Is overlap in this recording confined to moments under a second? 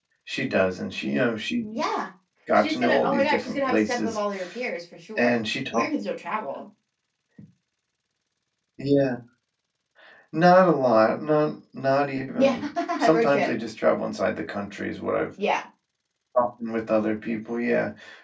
No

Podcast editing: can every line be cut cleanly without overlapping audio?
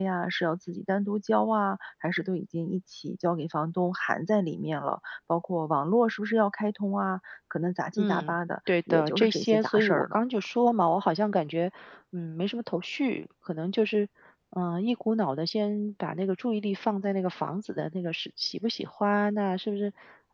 No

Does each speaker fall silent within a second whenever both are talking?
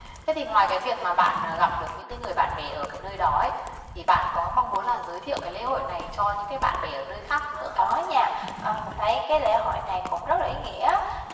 Yes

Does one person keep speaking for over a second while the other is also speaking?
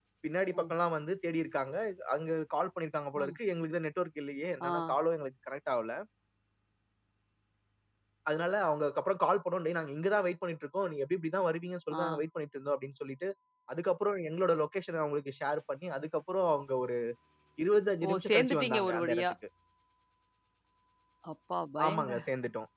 Yes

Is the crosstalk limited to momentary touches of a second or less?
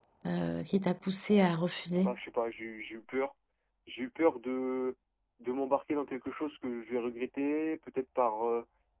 Yes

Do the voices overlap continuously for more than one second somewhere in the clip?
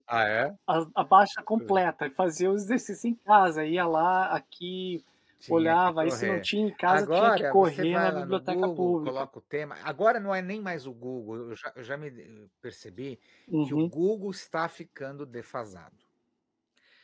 Yes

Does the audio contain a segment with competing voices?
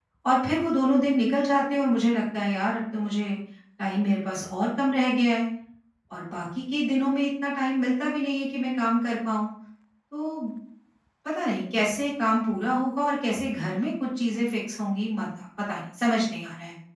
No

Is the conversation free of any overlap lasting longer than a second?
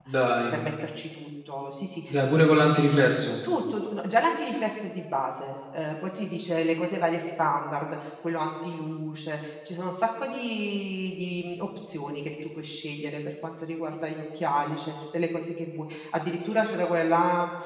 Yes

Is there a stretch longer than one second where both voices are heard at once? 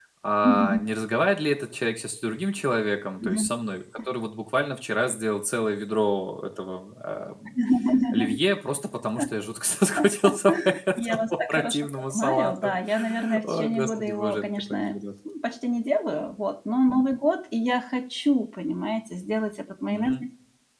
Yes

